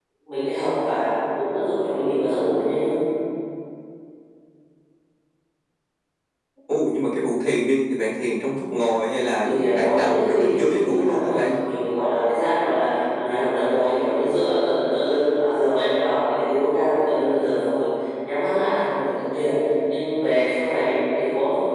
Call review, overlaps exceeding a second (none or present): present